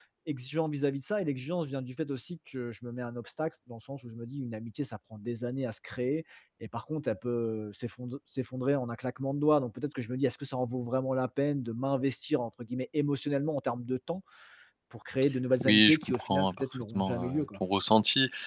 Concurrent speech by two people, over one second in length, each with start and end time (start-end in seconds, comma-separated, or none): 15.7-17.6